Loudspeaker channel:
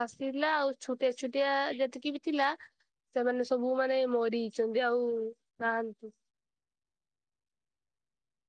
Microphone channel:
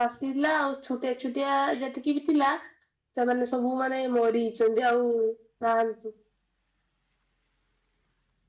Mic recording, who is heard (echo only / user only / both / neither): echo only